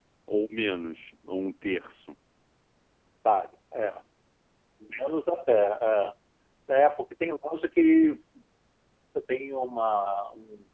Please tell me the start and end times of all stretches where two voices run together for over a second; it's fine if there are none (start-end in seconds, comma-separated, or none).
none